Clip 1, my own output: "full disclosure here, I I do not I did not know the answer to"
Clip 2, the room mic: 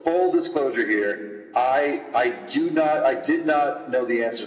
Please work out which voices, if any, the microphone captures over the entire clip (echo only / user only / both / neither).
echo only